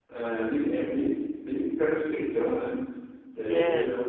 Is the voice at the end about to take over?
No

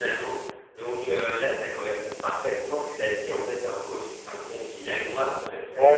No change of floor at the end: No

